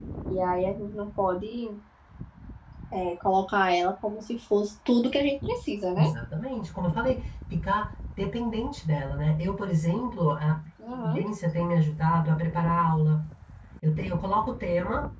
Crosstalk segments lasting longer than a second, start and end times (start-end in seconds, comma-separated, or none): none